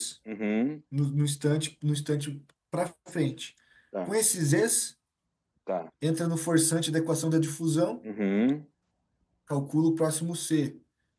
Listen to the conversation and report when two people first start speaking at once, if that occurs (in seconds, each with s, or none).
none